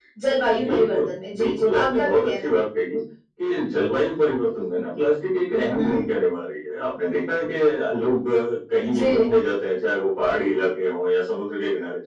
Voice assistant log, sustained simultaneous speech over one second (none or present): present